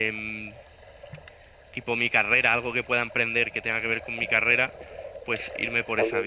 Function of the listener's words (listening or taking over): taking over